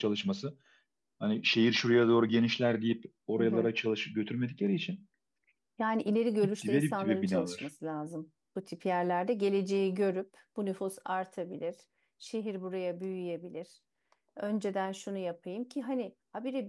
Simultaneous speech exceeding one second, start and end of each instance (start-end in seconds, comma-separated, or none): 6.4-7.7